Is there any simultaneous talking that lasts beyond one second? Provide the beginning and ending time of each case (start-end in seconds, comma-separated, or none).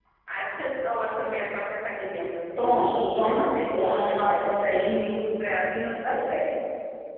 2.6-5.0